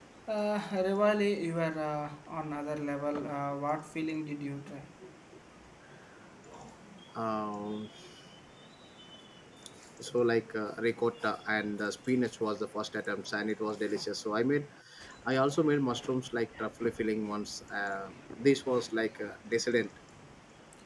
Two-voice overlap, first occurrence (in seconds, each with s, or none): none